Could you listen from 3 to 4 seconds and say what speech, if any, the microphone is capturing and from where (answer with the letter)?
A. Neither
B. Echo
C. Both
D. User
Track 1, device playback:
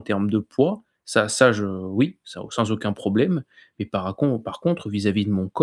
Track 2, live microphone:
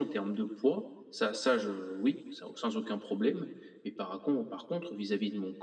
B